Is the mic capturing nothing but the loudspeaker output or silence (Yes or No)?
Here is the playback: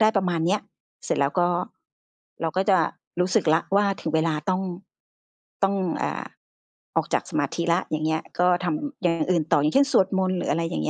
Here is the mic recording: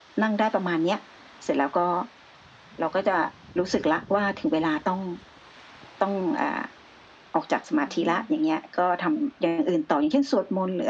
No